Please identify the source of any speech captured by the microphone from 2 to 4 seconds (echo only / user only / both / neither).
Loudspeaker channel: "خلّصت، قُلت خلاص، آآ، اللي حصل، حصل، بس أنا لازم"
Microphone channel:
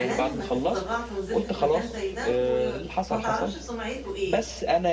both